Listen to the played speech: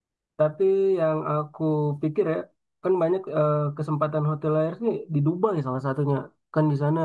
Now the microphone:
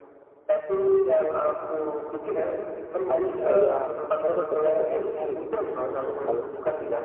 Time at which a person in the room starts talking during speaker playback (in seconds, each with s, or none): 3.1 s